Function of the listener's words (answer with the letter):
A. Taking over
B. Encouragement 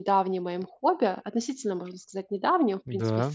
B